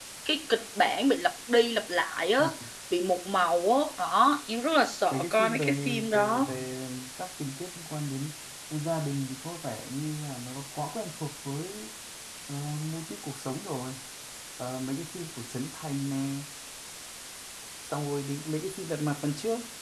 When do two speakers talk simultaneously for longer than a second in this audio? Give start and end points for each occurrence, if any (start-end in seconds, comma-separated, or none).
5.1-6.4